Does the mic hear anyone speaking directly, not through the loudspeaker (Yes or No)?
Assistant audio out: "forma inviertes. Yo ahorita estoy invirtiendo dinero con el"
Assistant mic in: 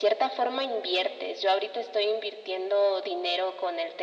No